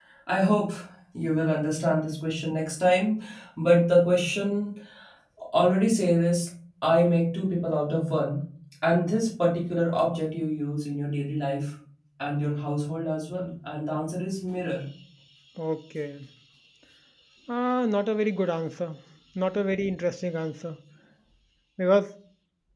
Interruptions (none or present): none